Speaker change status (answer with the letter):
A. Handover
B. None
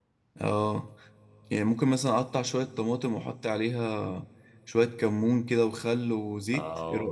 A